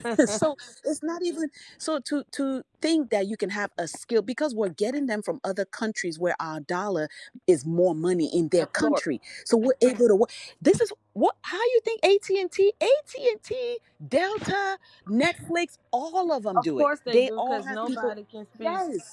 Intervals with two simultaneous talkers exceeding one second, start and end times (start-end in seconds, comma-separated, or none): 16.5-18.1